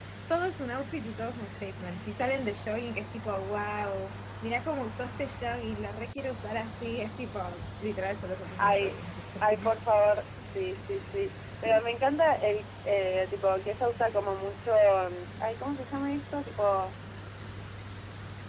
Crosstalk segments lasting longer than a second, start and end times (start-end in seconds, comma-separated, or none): none